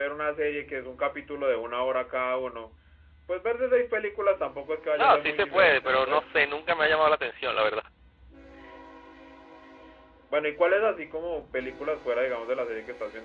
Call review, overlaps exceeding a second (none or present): present